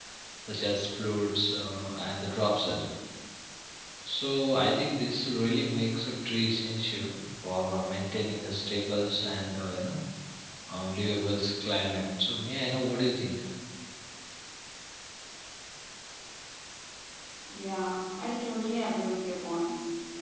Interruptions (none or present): none